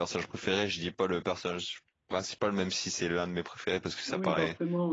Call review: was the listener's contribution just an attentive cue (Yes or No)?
No